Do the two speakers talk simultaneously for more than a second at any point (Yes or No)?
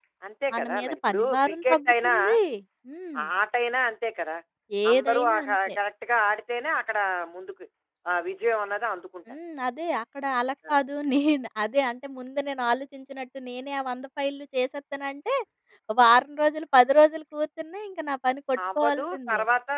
Yes